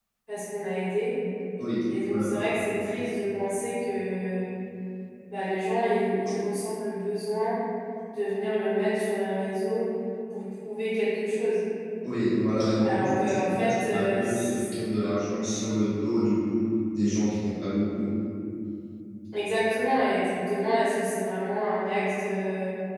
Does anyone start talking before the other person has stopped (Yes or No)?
Yes